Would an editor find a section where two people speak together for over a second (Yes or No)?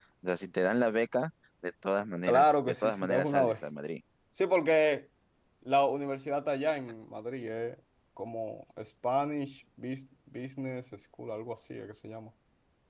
Yes